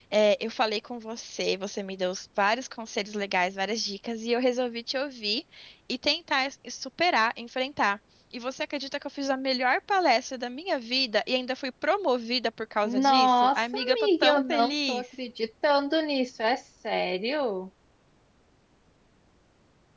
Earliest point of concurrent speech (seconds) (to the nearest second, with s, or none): 13 s